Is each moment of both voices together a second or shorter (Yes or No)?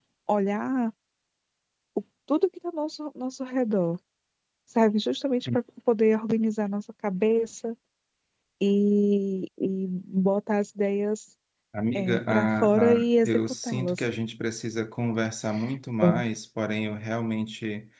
No